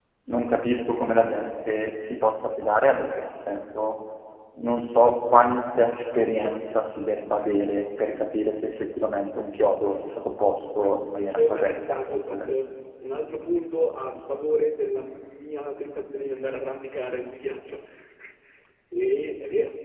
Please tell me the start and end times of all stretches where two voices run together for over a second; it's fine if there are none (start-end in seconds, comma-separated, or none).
10.8-12.5